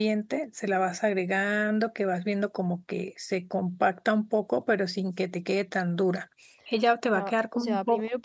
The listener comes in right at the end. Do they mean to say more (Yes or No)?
Yes